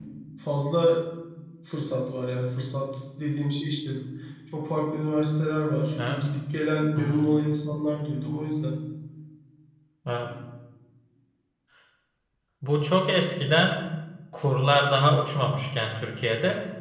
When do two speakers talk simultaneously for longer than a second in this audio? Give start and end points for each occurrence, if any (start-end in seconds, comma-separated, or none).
none